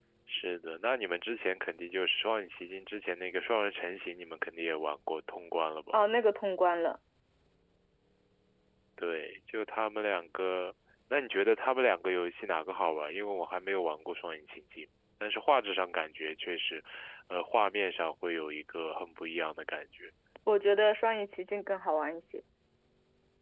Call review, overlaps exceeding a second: none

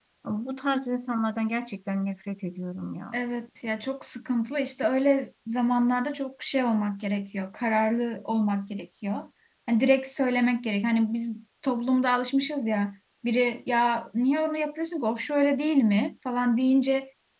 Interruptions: none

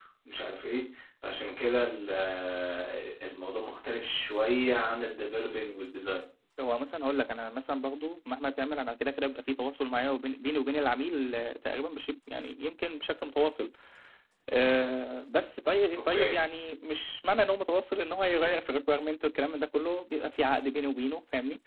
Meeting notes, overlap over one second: none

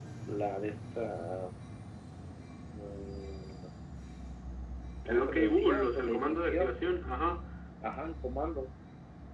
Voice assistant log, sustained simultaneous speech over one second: present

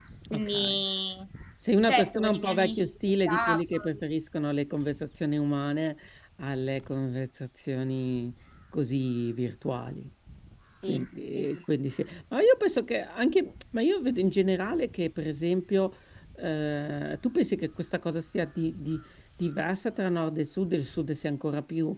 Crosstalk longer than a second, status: present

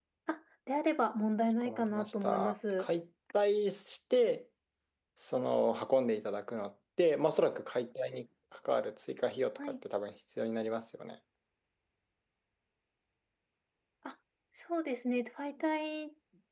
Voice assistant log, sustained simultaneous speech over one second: present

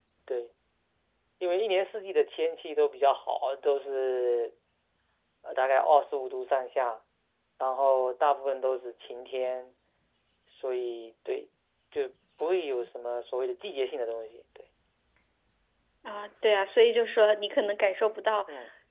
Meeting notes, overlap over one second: none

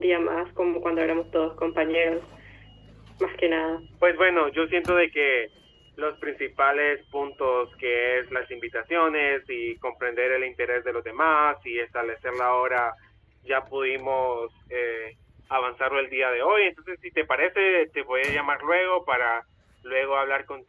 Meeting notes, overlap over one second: none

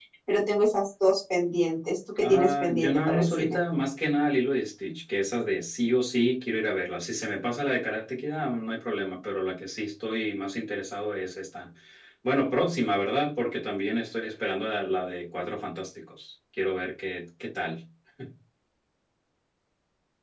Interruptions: present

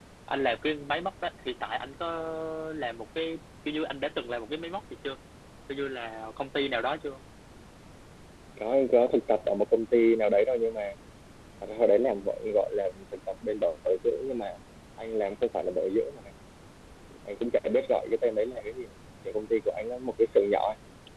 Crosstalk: none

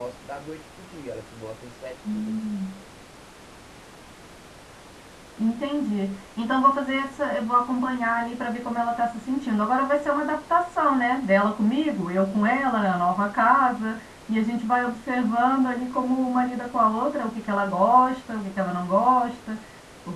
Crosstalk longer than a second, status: none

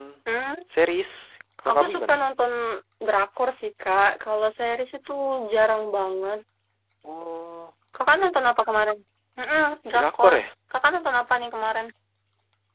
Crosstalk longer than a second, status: none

